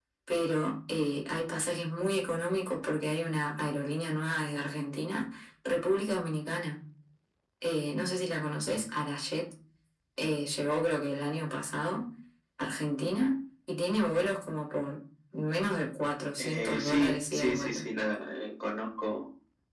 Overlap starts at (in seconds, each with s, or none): 16.4 s